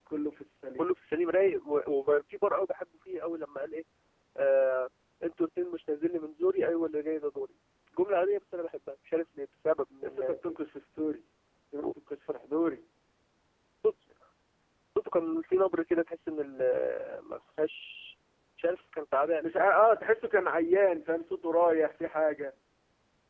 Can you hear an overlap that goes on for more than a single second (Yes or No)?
No